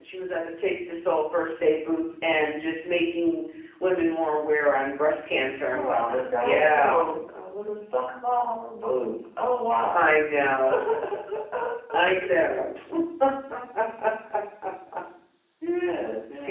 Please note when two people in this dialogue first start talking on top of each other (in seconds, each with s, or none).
5.7 s